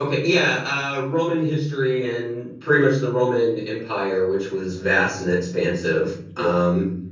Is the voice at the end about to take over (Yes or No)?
No